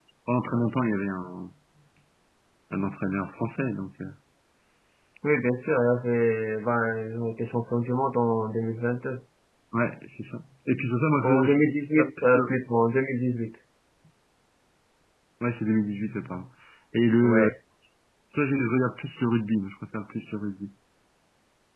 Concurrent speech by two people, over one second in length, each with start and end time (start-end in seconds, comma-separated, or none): none